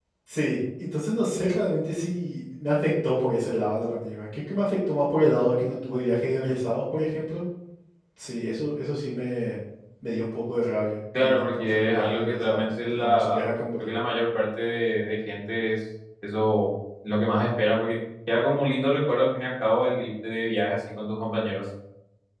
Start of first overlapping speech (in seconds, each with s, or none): 11.1 s